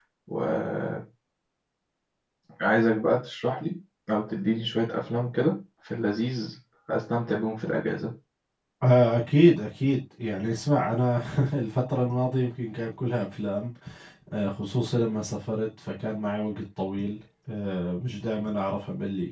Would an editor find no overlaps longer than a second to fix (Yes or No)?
Yes